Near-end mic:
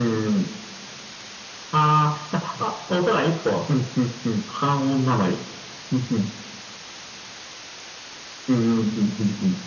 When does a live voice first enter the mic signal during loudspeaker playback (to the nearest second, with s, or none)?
none